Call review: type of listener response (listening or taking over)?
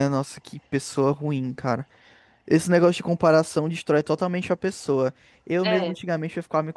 listening